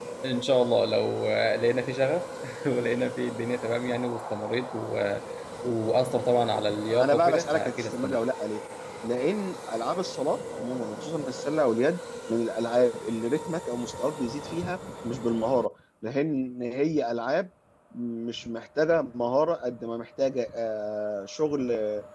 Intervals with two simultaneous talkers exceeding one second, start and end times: 6.9-8.2

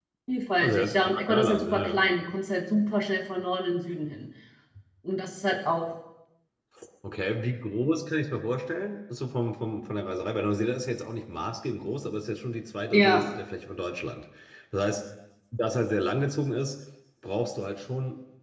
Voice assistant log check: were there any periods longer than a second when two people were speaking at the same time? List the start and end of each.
0.6-2.0

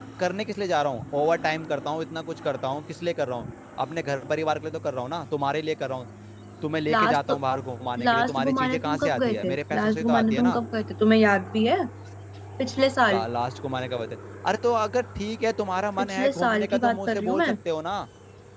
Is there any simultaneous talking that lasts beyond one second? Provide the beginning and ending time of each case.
8.0-10.6, 16.0-17.5

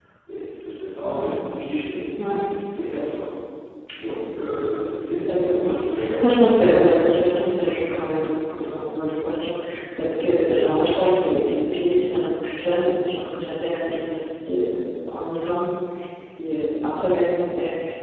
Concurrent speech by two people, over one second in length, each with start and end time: 5.3-6.5

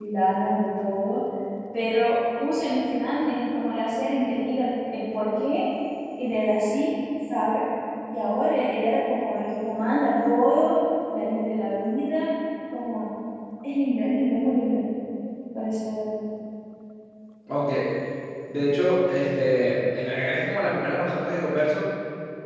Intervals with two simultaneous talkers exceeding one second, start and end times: none

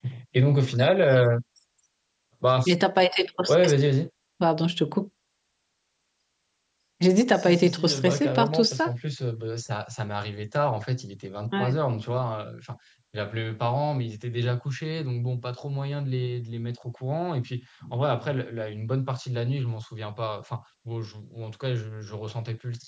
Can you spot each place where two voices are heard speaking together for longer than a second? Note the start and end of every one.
7.3-8.9

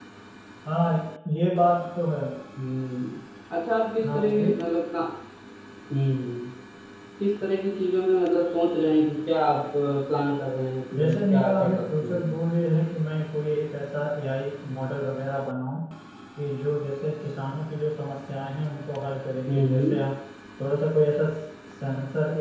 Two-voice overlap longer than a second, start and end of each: 10.9-12.3

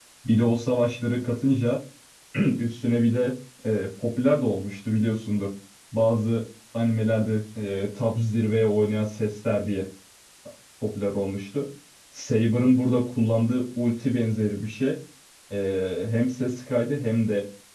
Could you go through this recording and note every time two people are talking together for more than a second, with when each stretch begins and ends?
none

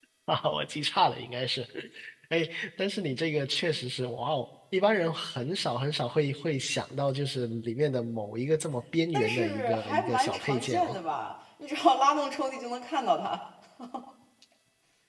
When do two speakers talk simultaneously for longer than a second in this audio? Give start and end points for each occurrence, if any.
9.1-11.0

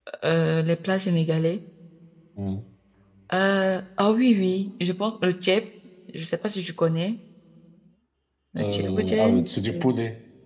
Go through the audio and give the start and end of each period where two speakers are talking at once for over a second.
8.6-9.9

